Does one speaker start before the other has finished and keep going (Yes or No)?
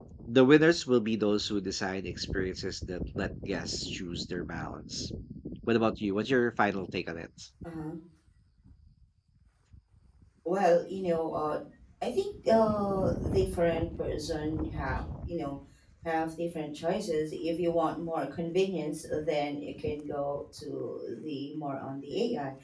No